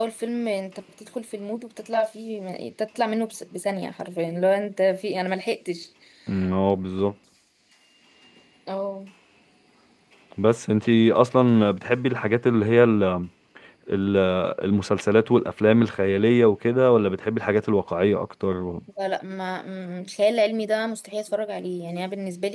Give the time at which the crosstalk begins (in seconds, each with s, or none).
none